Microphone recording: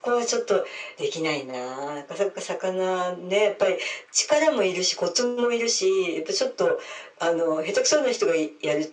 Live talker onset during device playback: none

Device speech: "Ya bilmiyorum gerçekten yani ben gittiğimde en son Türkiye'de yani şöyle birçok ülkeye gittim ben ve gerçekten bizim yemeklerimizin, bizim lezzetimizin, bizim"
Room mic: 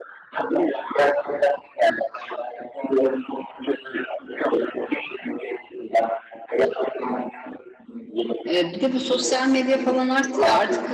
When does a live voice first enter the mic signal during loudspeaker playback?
8.5 s

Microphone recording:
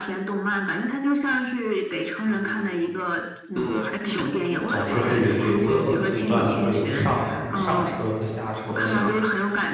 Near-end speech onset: 4.7 s

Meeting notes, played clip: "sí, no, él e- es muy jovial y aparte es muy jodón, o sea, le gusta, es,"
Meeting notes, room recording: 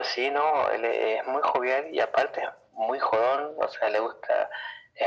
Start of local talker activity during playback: none

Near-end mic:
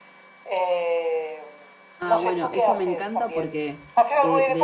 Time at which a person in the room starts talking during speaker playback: 2.0 s

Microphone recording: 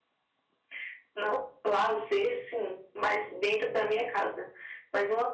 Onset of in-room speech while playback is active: none

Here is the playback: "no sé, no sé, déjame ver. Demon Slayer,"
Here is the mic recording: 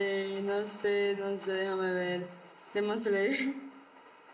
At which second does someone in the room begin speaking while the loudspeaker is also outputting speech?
none

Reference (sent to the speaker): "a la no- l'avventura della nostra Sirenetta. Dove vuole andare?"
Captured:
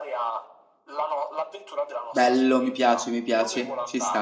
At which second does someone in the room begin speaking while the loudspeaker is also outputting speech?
2.1 s

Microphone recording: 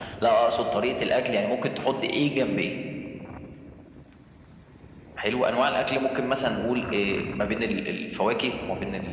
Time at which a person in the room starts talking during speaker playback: none

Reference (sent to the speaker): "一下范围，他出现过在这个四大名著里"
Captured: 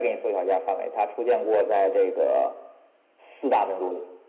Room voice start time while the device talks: none

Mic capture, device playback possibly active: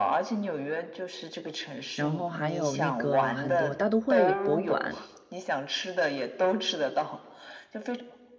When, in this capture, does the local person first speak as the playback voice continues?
1.9 s

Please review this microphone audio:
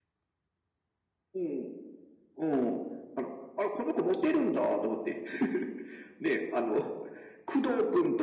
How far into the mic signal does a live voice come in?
none

